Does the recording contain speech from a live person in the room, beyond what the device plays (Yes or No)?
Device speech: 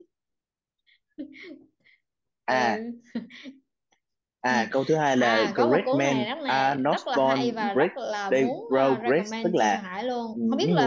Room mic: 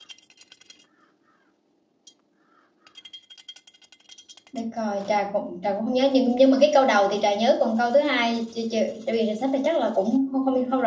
Yes